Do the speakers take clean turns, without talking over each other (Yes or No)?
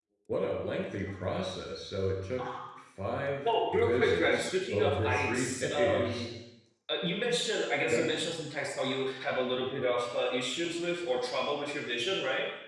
No